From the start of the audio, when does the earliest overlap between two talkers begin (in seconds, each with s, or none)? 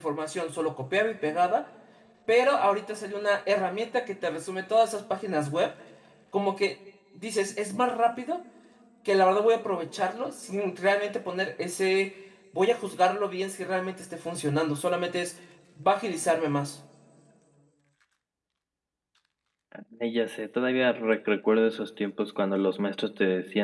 none